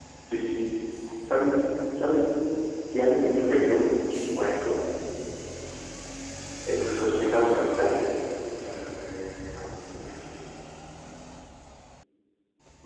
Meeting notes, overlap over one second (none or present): present